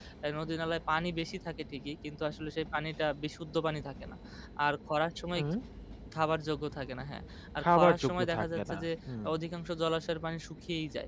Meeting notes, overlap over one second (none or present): present